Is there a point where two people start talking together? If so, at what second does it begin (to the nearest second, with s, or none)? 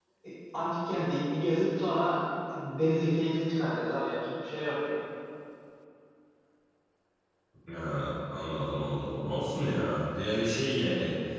none